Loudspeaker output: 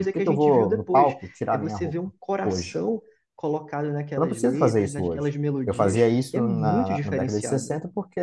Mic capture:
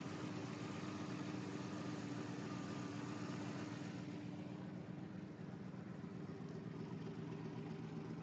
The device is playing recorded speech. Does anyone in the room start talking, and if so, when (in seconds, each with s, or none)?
none